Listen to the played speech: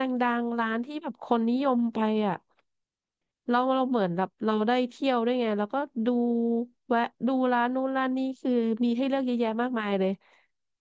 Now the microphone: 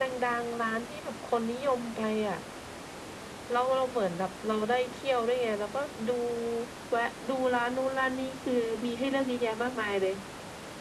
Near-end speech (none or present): none